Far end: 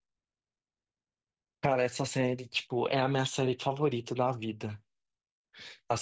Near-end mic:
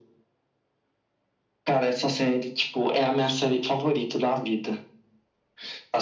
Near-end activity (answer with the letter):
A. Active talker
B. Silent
B